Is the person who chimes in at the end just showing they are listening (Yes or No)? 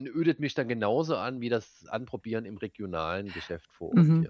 No